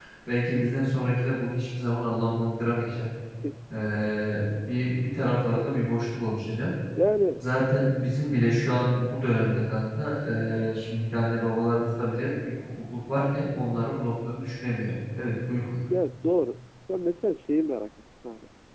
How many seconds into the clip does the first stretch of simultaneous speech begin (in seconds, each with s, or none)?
none